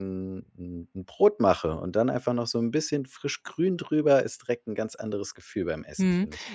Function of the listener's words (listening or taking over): taking over